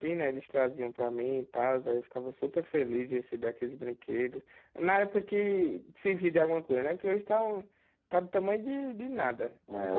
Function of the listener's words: taking over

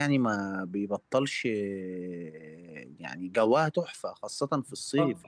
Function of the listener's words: listening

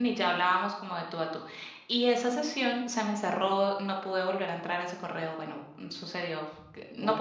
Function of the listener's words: listening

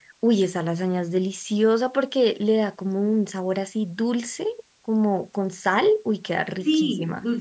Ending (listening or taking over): taking over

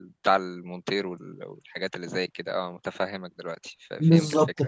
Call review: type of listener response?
taking over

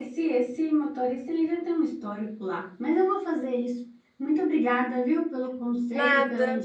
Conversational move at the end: listening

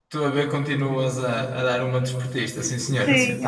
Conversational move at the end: taking over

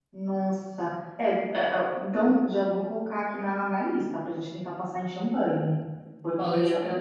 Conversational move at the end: listening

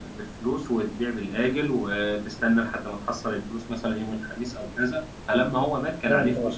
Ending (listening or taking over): listening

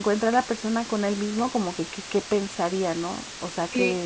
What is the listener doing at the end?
taking over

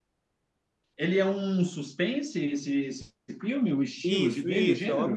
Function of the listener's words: taking over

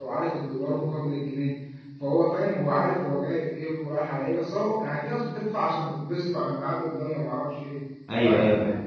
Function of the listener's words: taking over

